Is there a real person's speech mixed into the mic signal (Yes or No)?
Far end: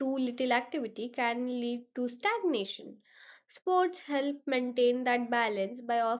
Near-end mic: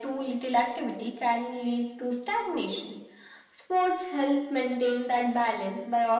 No